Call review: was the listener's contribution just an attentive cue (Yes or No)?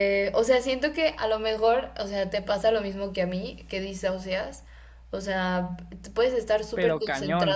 Yes